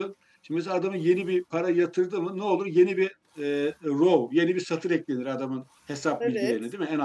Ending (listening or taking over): listening